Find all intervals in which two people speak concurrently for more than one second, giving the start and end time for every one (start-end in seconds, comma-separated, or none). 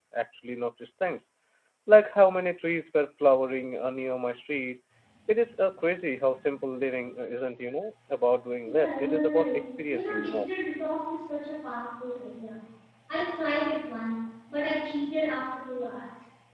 8.6-10.5